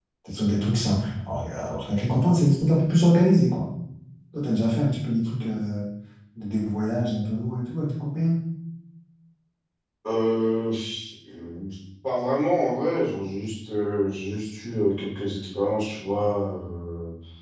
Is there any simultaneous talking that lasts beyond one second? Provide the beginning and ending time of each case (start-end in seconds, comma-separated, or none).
none